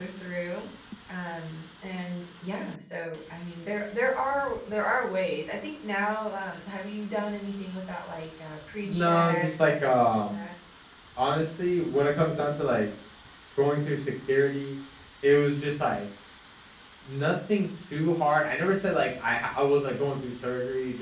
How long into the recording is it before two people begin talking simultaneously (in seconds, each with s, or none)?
8.8 s